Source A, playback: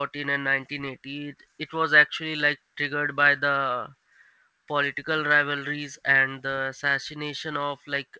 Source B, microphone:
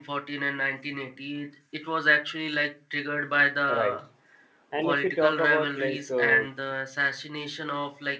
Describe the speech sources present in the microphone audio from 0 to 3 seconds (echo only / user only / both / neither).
echo only